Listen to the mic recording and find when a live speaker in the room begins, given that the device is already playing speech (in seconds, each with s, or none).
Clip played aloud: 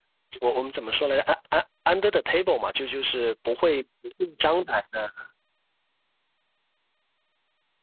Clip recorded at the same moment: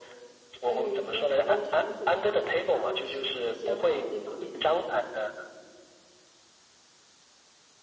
0.6 s